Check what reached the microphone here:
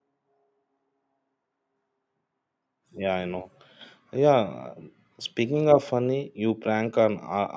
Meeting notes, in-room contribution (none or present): present